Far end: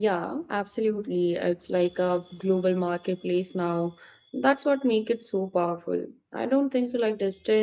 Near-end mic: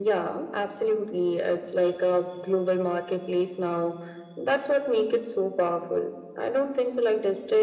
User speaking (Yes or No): No